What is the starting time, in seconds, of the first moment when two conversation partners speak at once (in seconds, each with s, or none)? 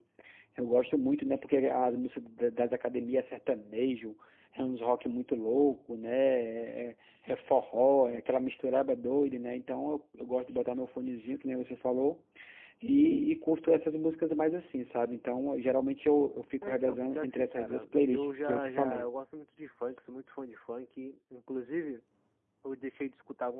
16.6 s